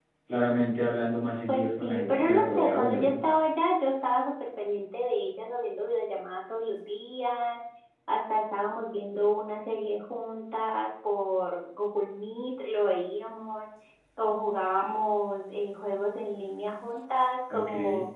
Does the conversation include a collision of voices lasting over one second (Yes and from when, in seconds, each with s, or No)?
Yes, from 1.5 s